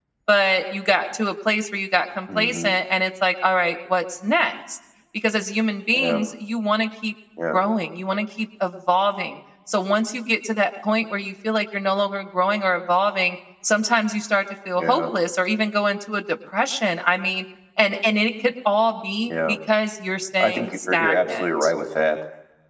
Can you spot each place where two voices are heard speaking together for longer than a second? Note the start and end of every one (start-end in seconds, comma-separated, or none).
20.4-21.7